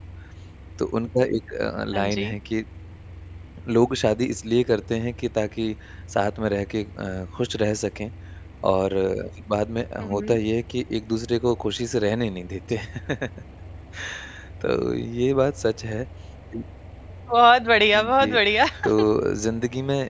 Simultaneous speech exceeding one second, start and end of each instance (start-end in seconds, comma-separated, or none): none